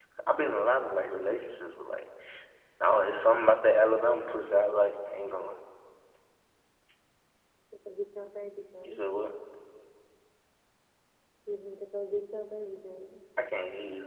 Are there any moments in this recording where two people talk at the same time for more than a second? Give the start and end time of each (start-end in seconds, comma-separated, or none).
none